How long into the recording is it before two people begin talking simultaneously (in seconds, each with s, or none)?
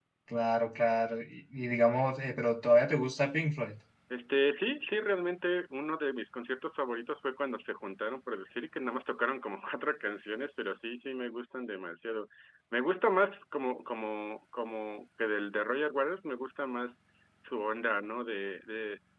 none